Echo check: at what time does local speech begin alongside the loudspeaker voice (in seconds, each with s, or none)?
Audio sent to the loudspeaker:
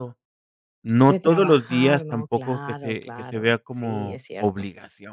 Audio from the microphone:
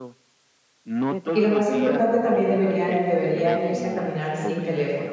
1.3 s